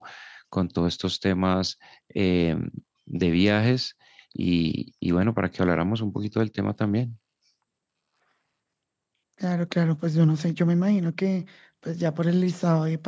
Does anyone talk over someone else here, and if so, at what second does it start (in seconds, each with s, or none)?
none